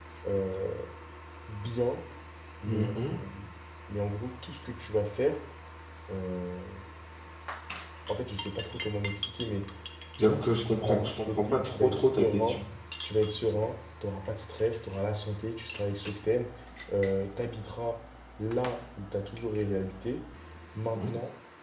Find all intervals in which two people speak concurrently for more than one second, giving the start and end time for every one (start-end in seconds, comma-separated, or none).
10.2-12.6